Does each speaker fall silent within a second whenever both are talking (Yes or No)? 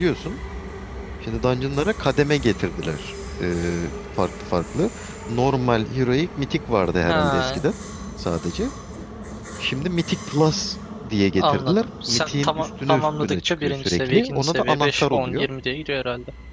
No